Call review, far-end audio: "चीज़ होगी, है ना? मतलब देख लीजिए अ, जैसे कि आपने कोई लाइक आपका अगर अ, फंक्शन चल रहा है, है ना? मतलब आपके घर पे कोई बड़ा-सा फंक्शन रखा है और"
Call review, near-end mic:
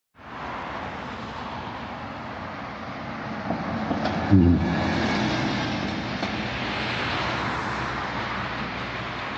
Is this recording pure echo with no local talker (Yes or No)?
No